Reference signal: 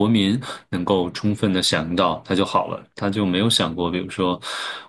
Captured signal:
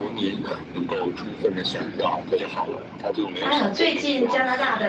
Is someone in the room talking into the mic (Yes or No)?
Yes